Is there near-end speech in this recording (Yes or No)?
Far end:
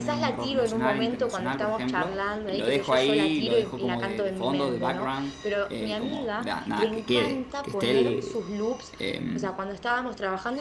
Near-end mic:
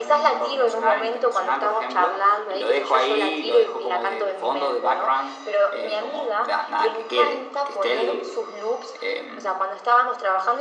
No